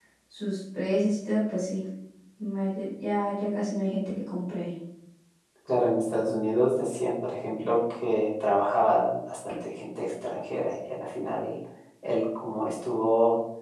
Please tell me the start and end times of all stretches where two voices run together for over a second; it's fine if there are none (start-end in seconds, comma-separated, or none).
none